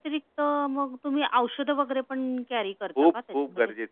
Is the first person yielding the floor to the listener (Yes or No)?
Yes